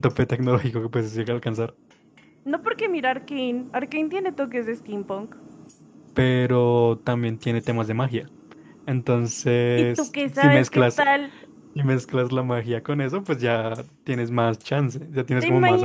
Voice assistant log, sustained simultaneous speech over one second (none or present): present